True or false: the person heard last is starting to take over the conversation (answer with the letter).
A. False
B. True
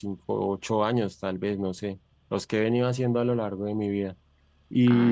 B